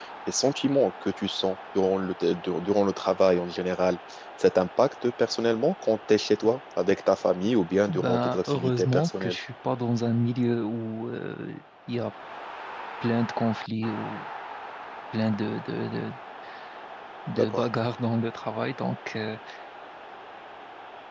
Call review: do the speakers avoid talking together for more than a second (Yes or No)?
No